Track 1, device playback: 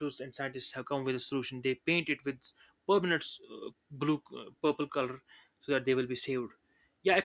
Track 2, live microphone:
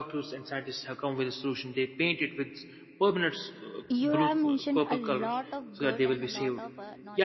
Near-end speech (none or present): present